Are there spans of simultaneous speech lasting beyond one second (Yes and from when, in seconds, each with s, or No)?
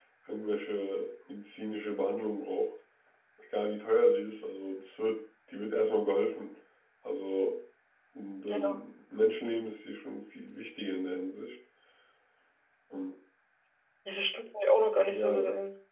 No